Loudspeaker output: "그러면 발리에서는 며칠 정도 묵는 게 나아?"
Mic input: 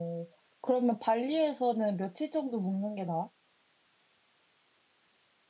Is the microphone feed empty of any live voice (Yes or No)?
Yes